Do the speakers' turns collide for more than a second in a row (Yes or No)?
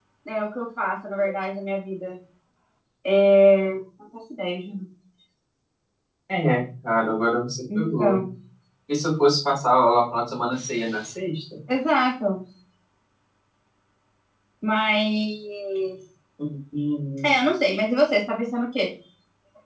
No